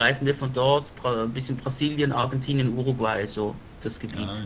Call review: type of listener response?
taking over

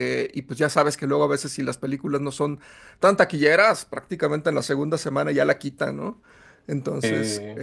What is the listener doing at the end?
listening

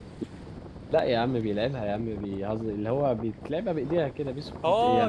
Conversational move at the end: taking over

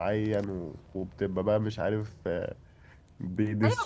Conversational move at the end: taking over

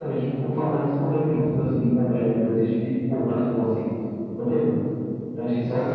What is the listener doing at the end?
taking over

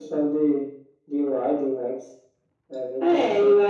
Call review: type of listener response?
taking over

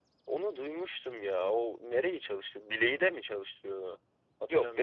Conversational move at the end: taking over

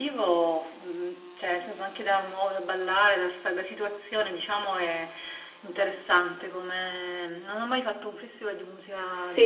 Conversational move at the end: taking over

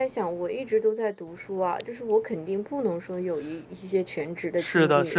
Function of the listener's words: taking over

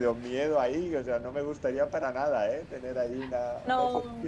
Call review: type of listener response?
taking over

